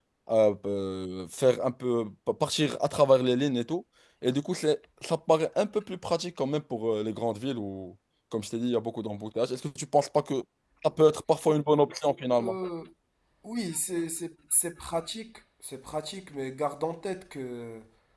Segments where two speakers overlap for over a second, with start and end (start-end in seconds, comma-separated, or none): none